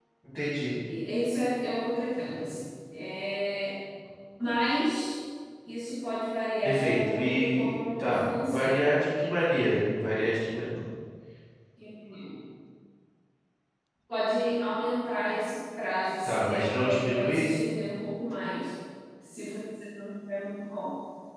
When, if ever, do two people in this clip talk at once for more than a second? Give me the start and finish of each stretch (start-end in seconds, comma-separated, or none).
6.6-8.8, 16.2-17.5